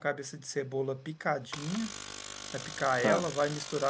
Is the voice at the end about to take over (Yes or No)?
No